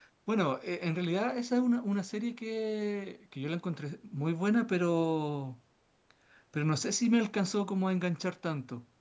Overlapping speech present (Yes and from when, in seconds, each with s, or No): No